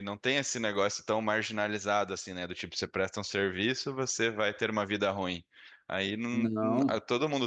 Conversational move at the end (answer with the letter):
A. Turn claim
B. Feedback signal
B